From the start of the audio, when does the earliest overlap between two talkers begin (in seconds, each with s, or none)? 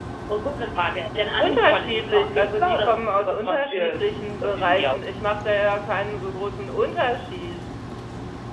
1.4 s